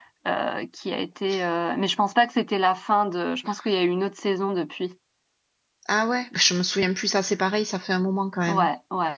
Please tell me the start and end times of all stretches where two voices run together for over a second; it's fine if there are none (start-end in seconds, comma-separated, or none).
none